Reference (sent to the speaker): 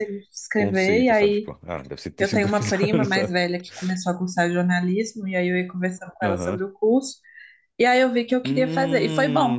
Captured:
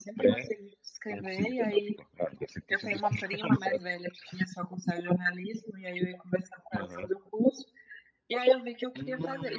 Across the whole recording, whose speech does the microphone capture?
echo only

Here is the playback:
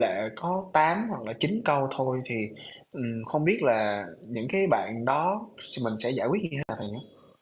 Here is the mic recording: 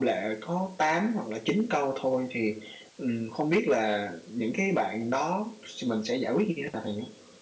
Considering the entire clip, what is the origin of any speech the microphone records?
echo only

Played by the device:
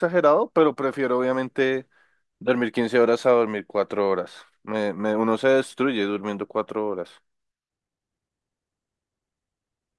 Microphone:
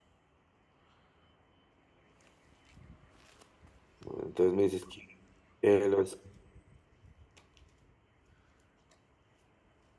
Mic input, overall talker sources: user only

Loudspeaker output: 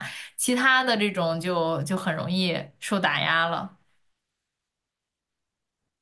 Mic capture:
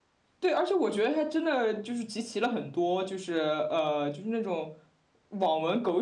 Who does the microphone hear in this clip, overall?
user only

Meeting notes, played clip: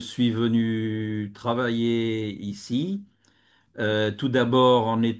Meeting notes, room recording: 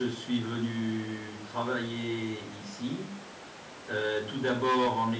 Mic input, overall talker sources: echo only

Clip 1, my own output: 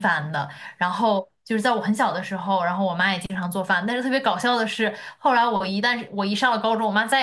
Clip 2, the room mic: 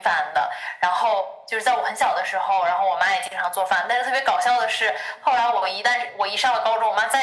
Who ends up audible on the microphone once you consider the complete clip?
echo only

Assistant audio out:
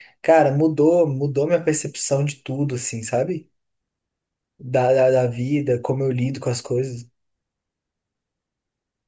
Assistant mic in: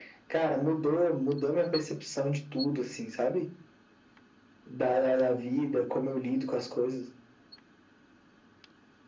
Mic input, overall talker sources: echo only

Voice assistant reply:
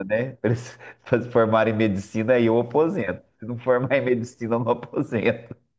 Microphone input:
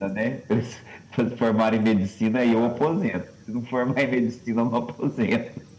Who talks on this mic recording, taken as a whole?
both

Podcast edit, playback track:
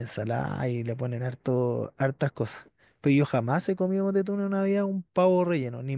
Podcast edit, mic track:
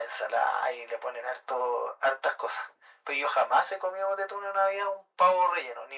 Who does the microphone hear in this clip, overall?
echo only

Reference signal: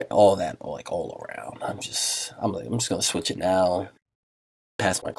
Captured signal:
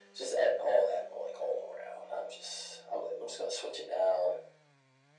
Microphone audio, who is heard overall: echo only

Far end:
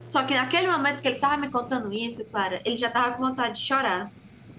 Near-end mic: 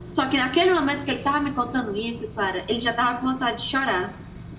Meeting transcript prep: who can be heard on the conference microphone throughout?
echo only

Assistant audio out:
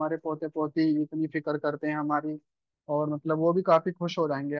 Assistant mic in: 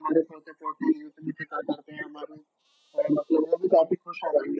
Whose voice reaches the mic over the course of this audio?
echo only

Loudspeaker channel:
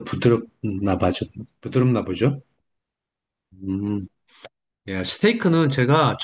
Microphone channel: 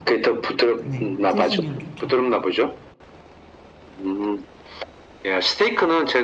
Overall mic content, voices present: both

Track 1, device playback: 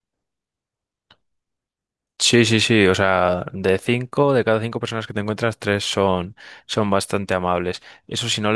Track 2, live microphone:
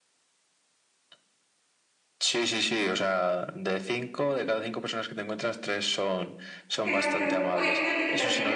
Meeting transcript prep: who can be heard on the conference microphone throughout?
both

